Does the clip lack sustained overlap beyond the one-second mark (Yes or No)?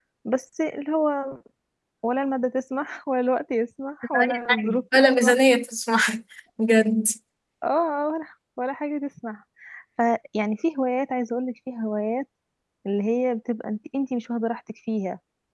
No